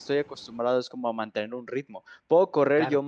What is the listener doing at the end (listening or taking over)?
listening